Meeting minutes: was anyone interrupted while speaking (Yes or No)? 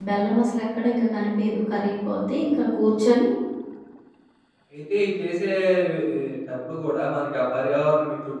No